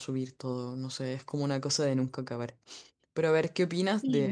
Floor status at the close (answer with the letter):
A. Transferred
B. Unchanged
B